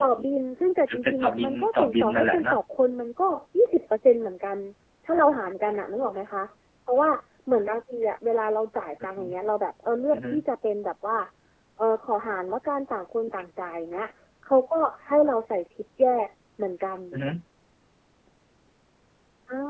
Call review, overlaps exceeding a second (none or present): present